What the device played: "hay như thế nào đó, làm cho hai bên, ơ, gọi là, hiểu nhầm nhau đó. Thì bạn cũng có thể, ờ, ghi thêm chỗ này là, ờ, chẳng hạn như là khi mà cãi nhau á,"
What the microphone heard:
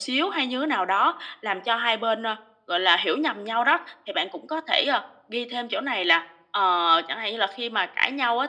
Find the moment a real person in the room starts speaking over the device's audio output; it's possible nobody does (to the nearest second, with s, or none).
none